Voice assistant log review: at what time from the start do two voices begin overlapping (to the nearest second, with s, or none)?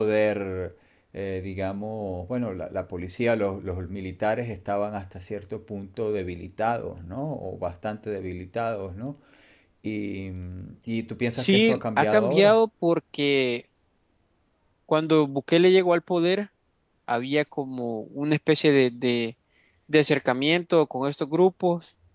11 s